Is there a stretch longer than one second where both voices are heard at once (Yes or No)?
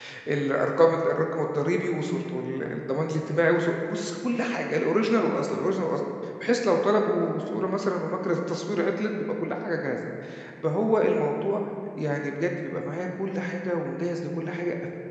No